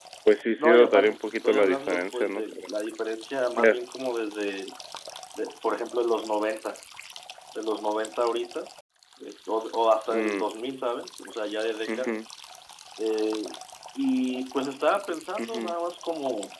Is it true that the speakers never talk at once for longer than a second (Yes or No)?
No